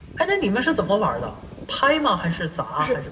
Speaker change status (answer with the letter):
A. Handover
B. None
A